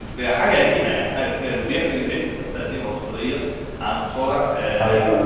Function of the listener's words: listening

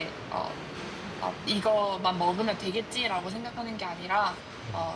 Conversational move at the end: listening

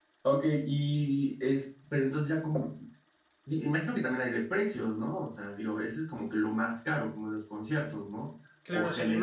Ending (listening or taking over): taking over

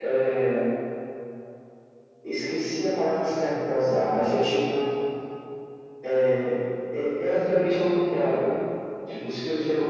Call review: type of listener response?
listening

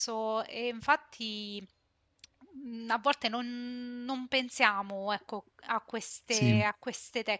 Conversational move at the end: listening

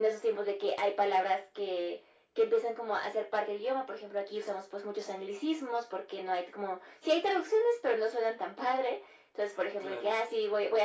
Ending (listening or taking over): listening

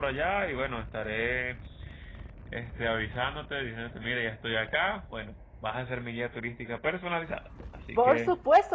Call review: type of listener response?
taking over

